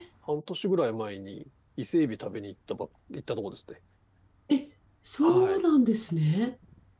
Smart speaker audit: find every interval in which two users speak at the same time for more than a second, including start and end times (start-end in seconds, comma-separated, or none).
none